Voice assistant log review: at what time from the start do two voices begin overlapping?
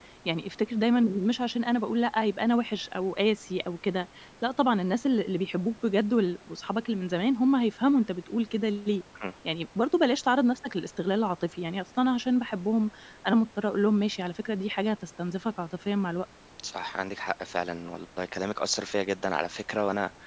none

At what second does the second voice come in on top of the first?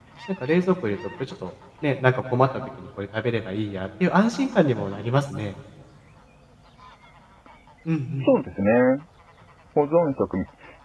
none

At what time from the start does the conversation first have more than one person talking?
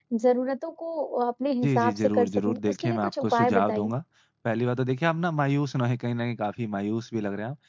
1.6 s

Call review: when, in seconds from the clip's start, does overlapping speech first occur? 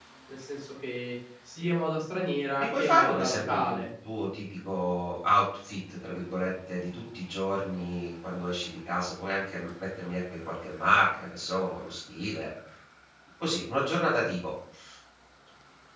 2.6 s

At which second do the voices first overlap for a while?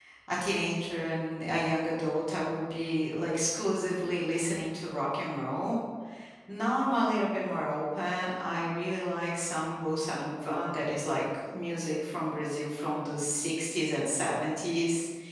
none

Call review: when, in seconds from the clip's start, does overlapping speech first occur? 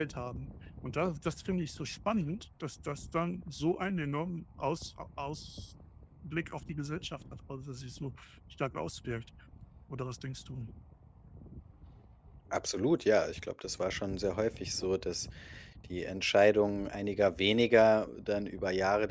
none

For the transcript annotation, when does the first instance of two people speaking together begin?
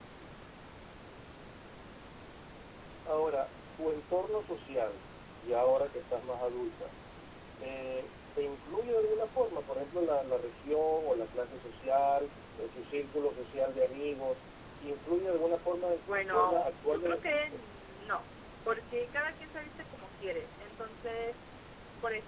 16.0 s

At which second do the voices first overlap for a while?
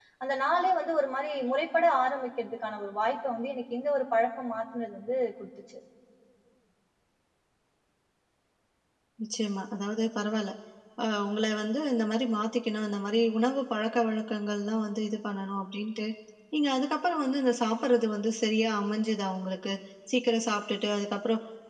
none

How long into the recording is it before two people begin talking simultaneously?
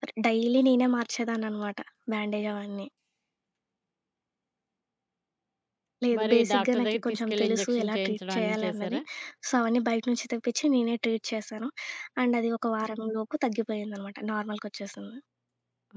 6.2 s

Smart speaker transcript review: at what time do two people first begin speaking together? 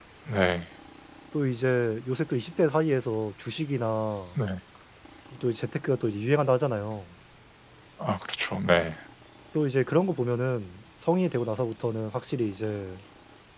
none

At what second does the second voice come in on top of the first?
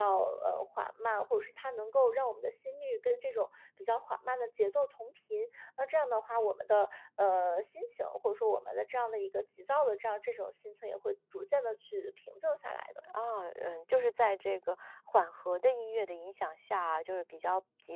none

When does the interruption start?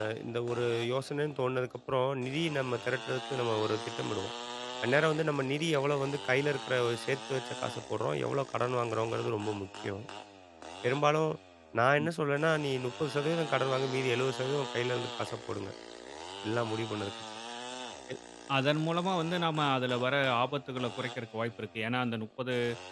none

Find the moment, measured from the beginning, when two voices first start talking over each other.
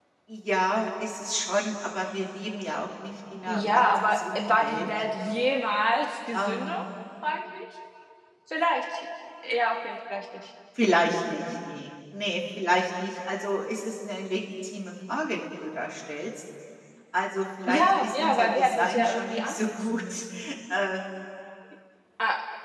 3.5 s

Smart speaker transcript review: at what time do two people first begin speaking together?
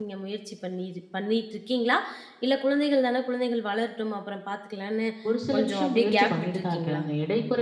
5.5 s

